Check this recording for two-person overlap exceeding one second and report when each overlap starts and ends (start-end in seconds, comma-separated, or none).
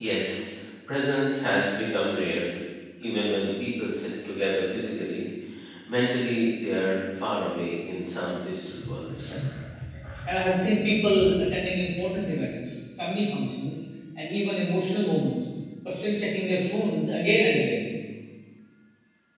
none